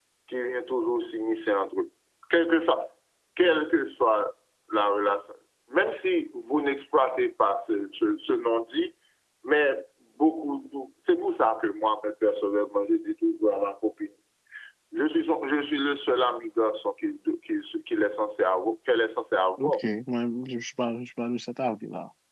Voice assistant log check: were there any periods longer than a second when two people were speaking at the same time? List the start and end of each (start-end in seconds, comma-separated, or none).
none